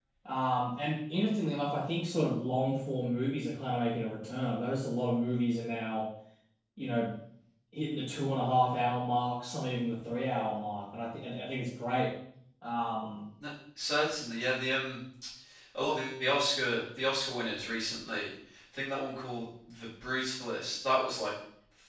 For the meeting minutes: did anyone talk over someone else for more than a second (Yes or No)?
No